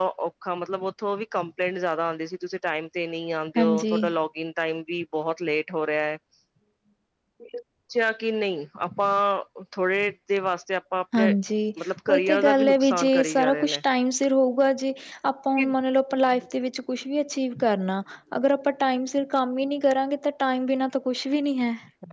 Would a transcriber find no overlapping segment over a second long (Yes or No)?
No